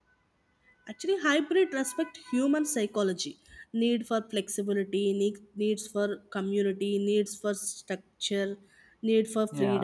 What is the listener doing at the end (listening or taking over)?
taking over